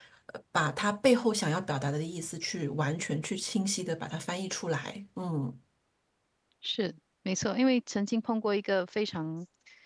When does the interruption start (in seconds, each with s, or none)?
none